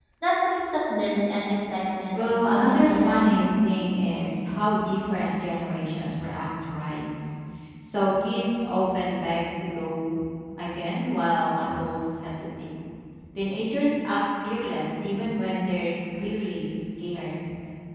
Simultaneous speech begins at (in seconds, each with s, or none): 2.1 s